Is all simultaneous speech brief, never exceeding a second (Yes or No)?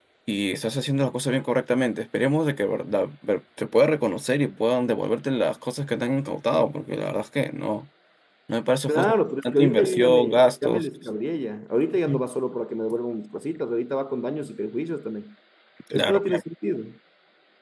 No